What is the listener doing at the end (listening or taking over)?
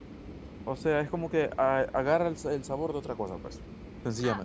taking over